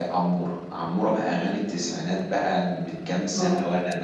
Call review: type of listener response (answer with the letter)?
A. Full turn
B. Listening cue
B